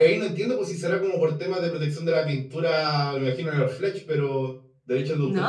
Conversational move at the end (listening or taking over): taking over